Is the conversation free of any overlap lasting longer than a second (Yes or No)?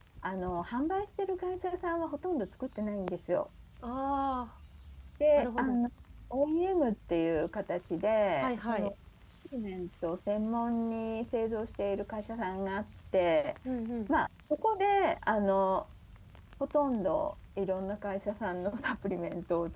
Yes